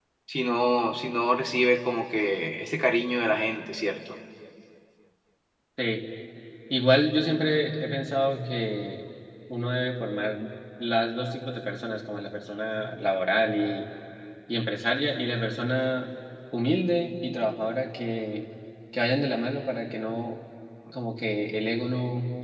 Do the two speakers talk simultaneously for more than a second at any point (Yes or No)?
No